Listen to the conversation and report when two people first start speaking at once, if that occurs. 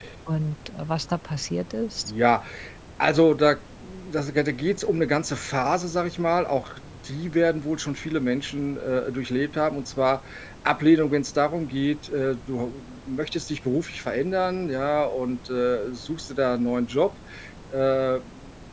none

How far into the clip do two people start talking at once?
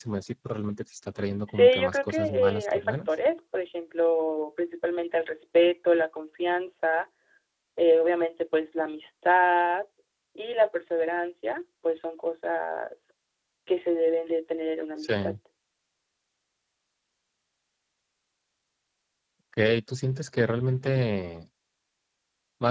1.5 s

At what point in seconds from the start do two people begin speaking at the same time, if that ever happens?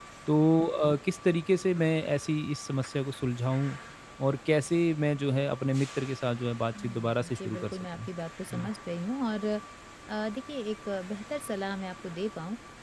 6.8 s

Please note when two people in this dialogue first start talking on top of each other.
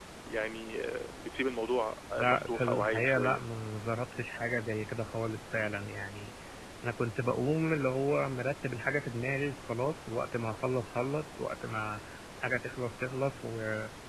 2.1 s

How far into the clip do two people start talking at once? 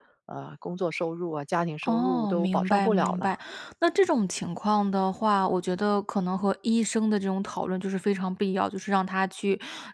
1.8 s

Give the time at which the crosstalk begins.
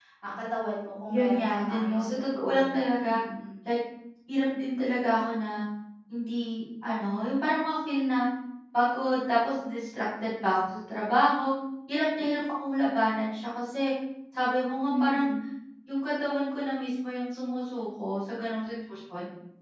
1.1 s

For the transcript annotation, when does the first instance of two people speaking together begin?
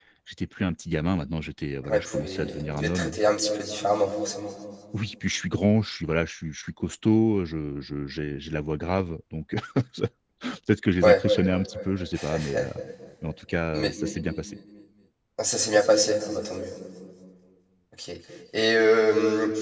1.8 s

